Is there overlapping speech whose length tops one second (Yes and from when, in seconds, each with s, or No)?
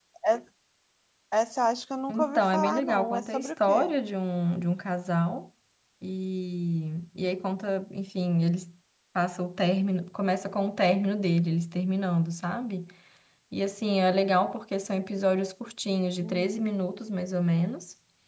Yes, from 2.1 s